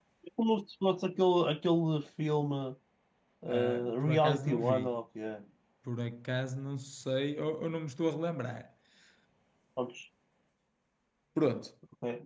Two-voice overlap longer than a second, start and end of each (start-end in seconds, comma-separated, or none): 3.5-5.0